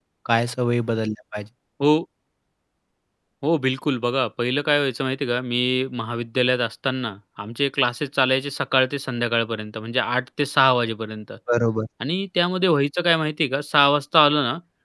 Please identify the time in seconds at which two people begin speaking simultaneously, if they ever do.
none

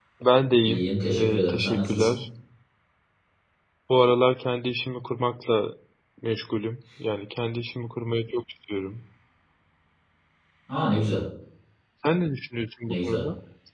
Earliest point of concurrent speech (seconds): 0.6 s

